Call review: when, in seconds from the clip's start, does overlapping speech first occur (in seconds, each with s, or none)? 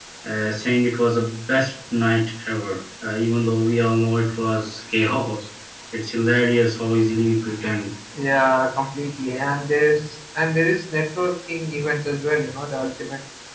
none